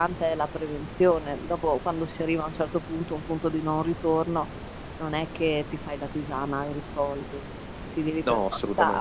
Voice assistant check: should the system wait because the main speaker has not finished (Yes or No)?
Yes